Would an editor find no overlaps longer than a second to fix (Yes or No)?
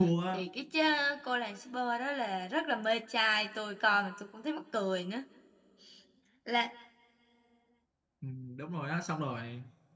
Yes